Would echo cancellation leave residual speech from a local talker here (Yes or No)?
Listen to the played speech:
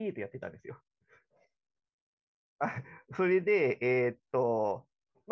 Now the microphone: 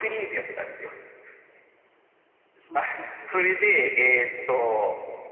Yes